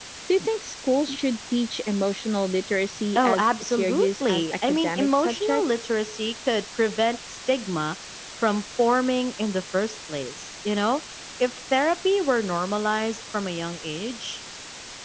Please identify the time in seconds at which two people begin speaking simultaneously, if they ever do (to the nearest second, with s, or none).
3 s